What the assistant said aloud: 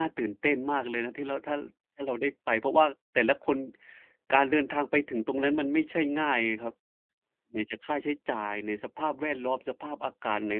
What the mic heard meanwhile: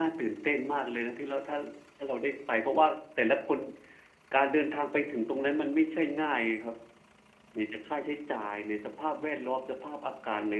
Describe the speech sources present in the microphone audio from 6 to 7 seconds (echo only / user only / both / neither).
echo only